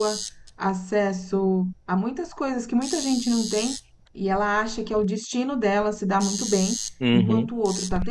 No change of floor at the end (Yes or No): Yes